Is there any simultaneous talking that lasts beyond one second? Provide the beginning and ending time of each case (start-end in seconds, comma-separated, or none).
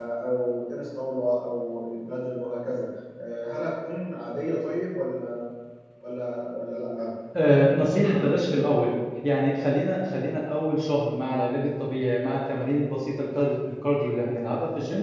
none